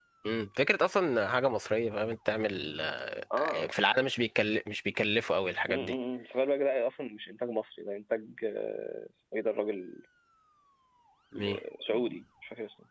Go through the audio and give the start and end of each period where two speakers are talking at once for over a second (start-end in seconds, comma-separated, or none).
none